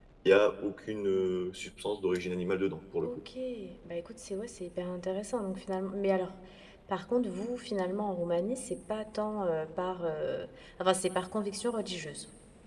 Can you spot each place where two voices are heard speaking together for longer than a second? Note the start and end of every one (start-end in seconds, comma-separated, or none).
none